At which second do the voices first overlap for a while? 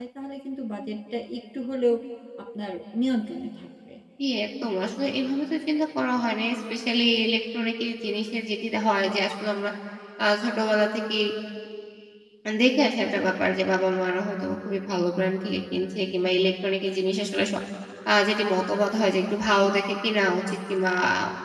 none

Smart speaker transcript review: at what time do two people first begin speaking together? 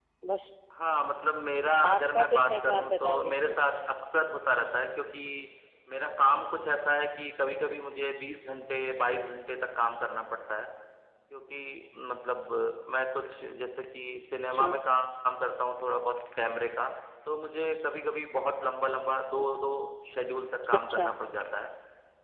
1.8 s

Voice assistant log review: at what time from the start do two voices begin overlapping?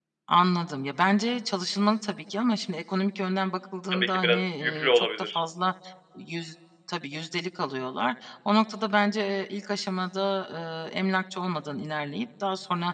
3.9 s

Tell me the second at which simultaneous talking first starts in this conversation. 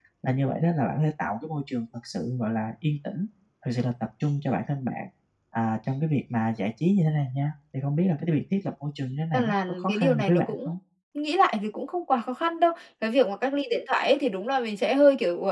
9.3 s

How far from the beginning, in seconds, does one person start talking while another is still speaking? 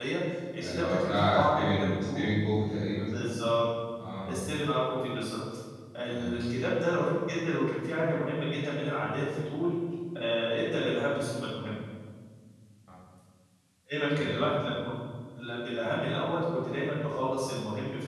0.6 s

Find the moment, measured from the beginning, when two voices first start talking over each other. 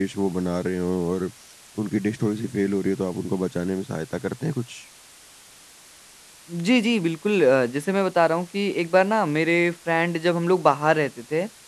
none

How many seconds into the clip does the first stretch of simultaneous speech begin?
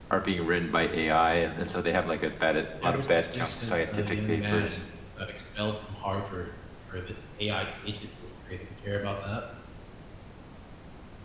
2.8 s

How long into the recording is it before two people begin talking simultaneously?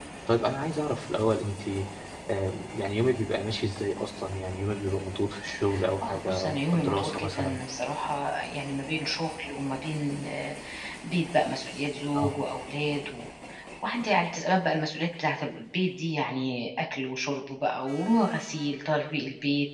6.0 s

